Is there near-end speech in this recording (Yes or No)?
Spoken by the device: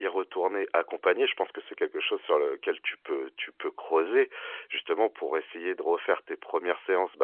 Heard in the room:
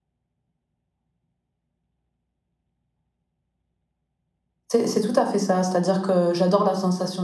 Yes